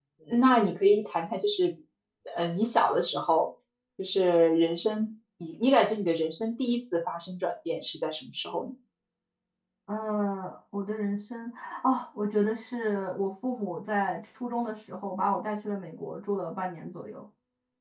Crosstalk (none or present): none